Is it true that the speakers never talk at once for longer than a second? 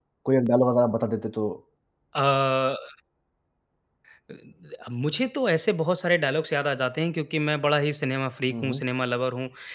Yes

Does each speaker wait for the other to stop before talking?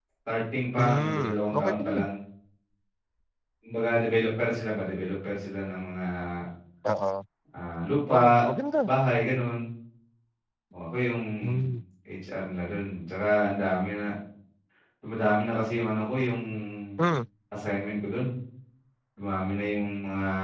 No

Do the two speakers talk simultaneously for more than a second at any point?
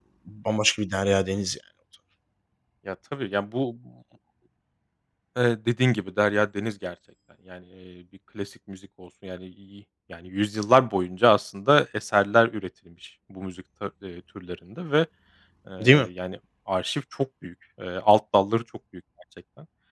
No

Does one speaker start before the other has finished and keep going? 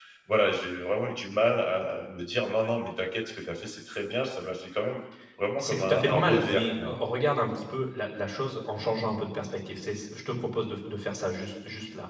Yes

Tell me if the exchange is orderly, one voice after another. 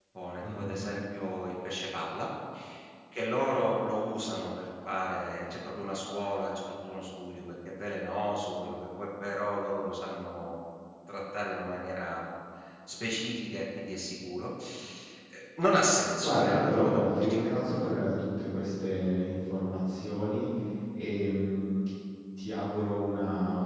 No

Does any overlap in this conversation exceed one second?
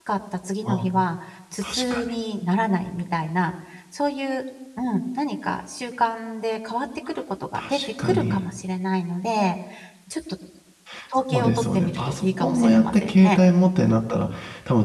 Yes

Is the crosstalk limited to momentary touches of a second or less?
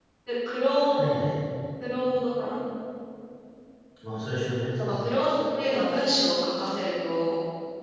Yes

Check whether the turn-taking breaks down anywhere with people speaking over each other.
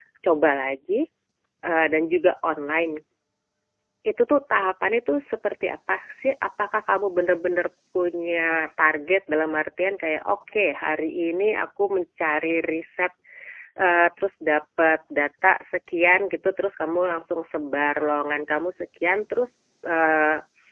No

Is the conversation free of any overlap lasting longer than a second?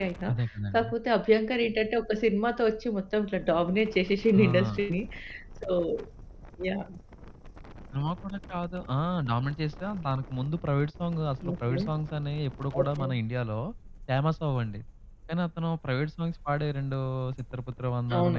Yes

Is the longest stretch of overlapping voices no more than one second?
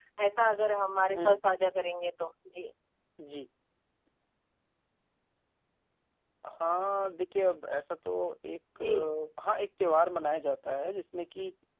Yes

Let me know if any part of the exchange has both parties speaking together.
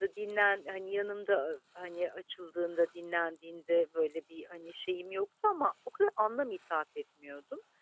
No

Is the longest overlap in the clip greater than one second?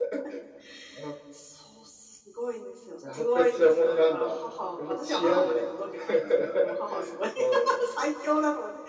Yes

